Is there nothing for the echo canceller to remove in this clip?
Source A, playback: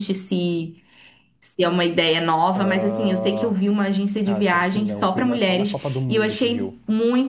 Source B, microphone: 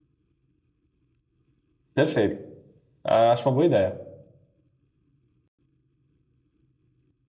Yes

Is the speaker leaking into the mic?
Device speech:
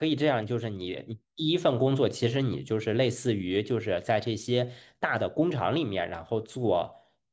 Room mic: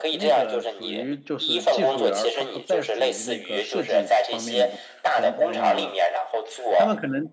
Yes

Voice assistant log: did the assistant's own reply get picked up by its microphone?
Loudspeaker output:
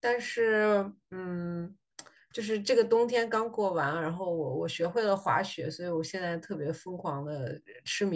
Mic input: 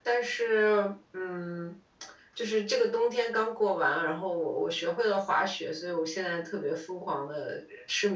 Yes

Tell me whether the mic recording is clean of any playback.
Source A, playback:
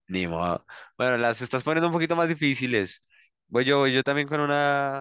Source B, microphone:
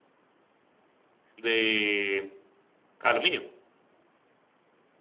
Yes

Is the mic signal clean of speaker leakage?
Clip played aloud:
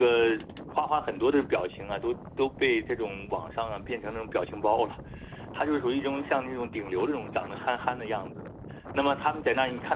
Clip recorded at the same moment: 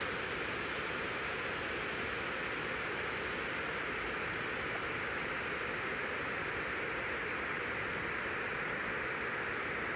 Yes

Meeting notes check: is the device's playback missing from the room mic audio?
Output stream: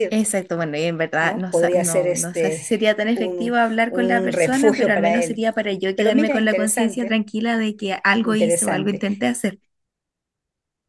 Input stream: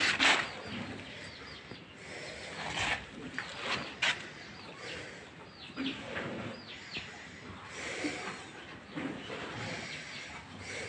Yes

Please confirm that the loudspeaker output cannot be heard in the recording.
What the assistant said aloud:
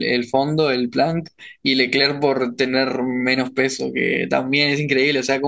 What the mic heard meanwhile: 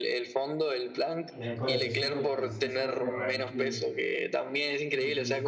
No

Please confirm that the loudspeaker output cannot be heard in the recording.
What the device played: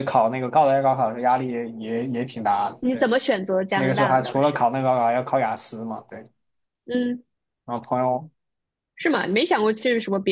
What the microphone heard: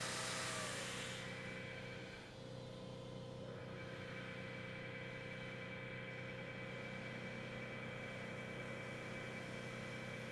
Yes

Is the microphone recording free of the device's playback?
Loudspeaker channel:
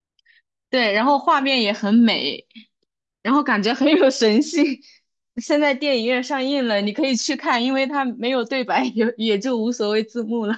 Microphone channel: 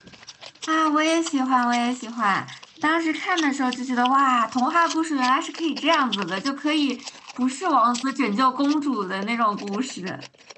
Yes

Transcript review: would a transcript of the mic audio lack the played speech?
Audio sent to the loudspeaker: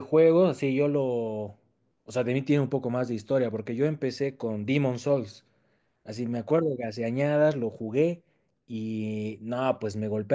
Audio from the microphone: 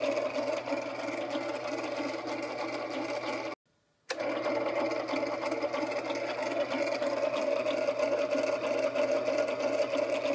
Yes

